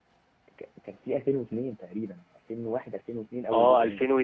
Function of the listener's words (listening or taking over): taking over